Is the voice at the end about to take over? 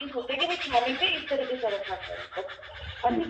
No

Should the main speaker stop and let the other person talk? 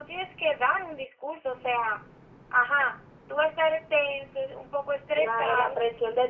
Yes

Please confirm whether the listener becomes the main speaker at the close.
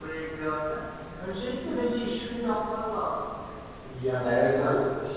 Yes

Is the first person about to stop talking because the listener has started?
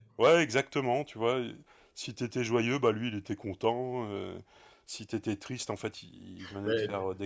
No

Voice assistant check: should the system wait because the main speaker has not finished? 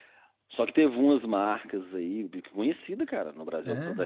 Yes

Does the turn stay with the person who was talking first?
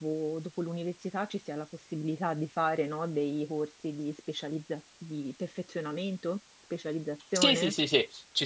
No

